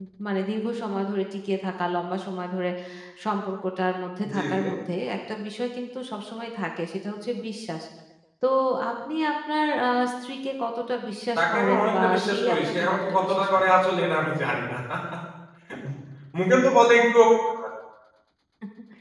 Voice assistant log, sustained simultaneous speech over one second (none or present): present